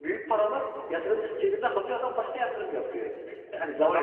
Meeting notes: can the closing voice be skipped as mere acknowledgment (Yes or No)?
Yes